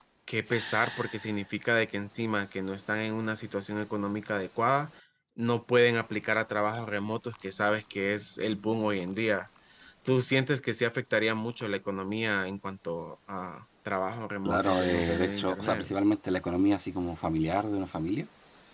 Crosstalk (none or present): present